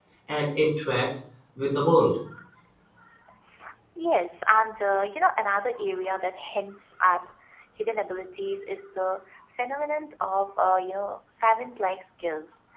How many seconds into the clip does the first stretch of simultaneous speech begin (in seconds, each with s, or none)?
none